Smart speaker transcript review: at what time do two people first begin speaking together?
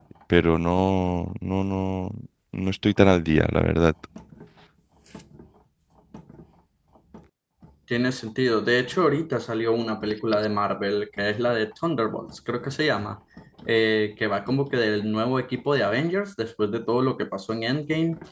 none

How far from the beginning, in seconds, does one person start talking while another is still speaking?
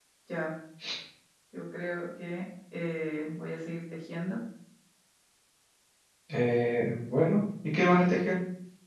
none

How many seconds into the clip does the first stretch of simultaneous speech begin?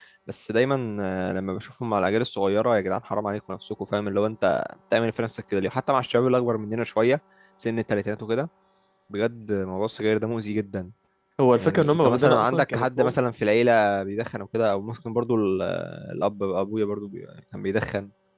11.6 s

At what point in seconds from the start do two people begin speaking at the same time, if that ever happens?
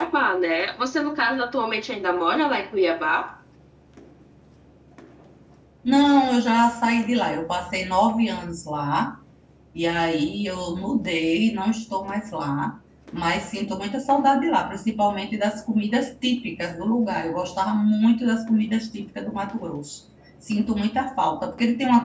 none

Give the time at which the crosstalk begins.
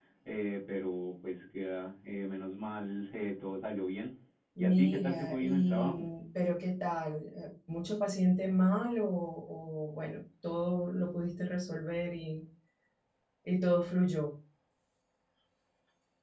4.6 s

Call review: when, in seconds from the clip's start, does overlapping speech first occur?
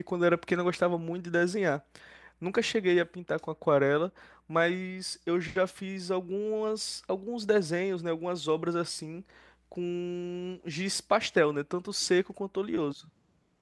none

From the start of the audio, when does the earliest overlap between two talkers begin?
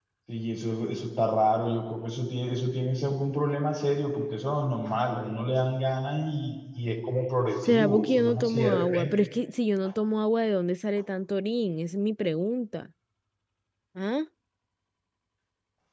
7.7 s

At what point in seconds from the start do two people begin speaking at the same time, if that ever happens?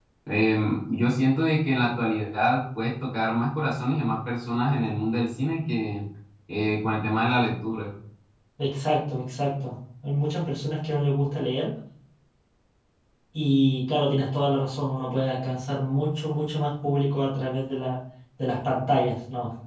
none

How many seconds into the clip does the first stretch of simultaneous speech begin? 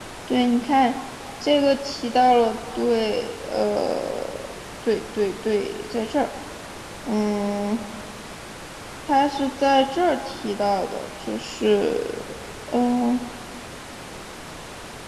none

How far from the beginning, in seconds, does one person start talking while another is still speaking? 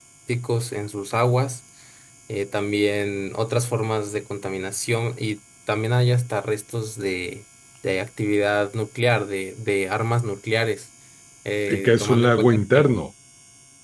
11.7 s

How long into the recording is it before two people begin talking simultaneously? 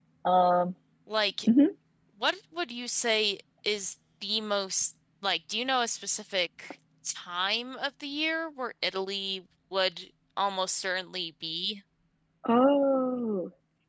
none

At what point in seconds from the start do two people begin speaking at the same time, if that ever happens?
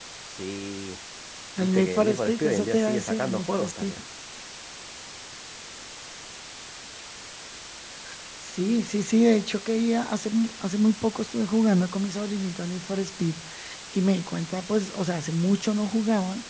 1.6 s

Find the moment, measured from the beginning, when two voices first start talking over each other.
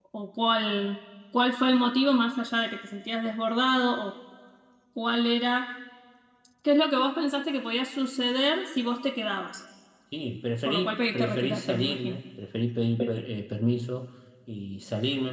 10.7 s

